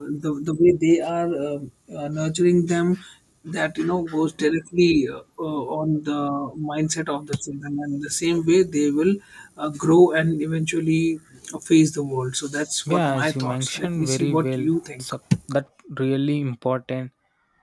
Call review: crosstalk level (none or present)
present